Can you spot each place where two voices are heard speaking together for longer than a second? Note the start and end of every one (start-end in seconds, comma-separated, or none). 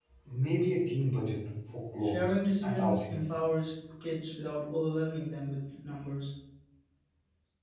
2.0-3.4